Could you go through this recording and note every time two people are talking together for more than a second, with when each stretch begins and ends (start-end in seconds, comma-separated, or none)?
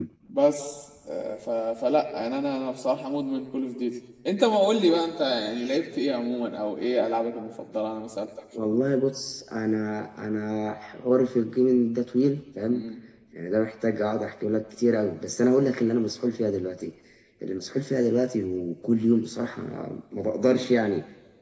none